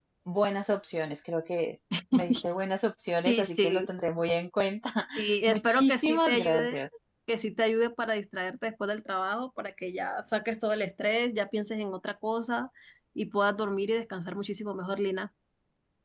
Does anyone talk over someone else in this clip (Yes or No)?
Yes